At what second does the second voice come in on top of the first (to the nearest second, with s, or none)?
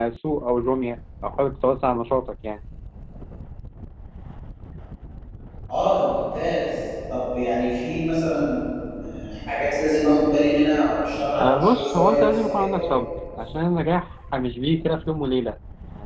11 s